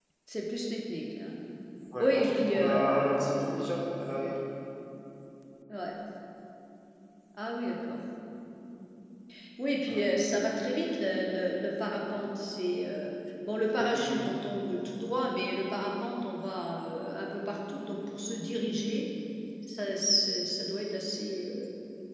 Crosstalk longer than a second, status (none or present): present